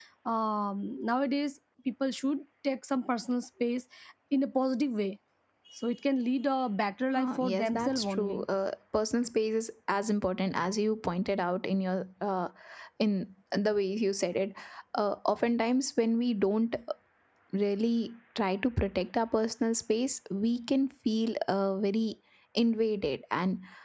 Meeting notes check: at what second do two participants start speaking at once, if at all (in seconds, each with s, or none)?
7.1 s